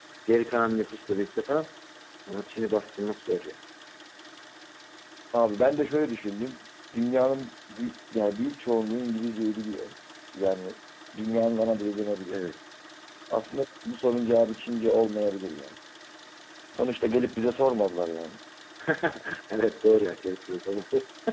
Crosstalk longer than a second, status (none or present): none